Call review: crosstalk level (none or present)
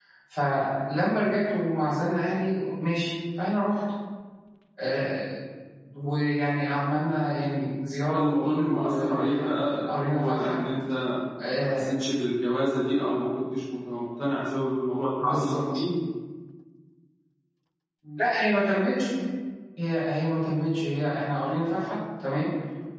present